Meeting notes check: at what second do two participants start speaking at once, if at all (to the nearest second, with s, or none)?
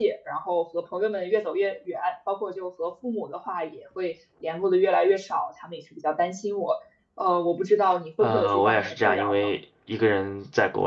8 s